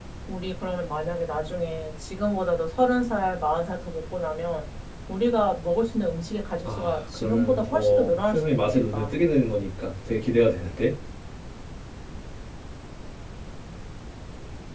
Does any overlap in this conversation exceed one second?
Yes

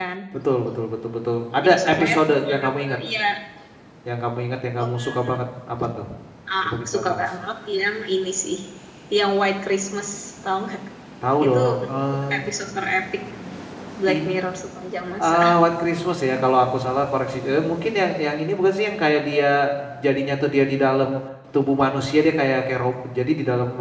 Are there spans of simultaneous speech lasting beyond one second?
Yes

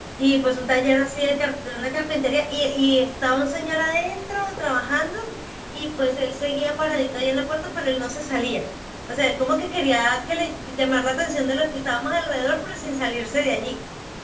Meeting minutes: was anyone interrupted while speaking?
No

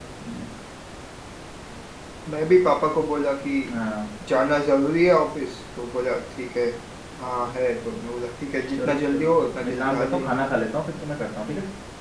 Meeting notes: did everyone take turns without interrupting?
No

